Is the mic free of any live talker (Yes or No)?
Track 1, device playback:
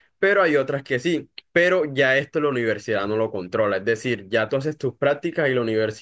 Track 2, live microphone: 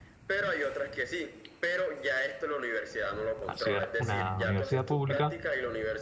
No